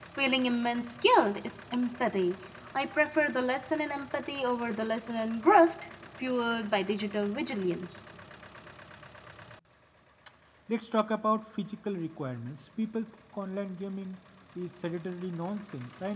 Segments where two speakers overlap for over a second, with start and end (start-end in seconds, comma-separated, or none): none